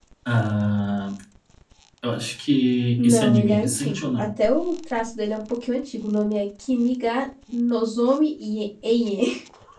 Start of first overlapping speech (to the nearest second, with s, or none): 3 s